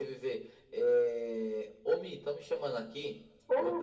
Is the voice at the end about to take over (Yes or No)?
No